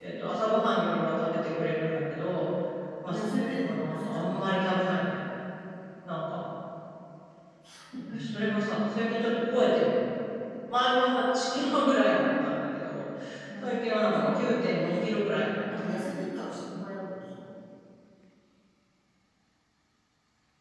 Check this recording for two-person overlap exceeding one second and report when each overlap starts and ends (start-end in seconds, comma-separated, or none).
3.1-4.4, 13.6-15.6